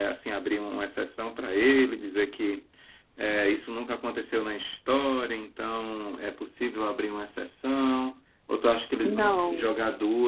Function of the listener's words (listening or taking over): listening